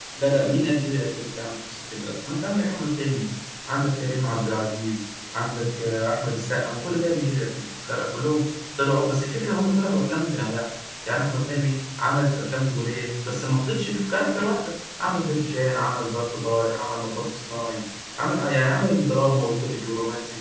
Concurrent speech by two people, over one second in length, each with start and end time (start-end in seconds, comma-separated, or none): none